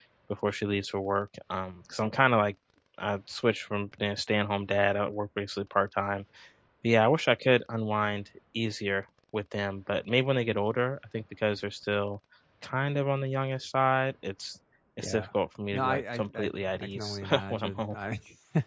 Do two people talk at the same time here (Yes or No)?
Yes